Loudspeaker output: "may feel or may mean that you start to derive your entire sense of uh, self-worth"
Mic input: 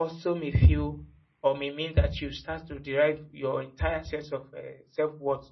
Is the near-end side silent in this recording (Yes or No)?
Yes